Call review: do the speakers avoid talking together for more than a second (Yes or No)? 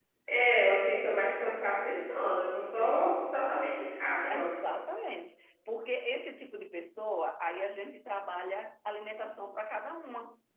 Yes